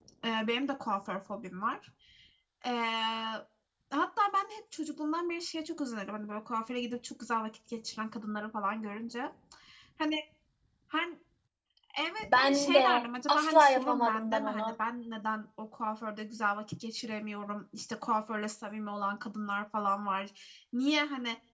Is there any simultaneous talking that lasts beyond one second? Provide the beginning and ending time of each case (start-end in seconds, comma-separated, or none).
12.3-14.7